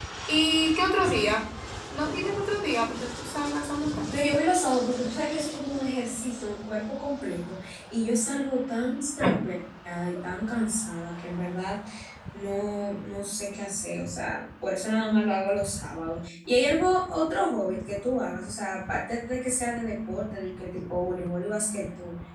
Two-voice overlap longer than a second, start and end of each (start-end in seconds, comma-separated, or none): none